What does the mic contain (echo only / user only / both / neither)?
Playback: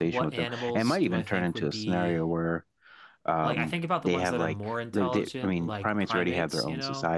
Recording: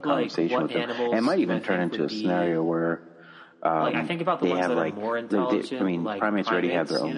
echo only